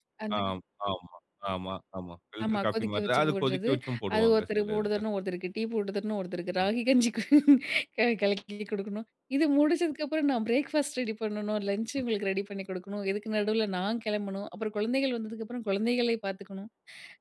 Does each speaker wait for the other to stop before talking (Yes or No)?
No